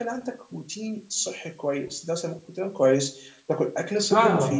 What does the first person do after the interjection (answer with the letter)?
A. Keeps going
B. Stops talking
A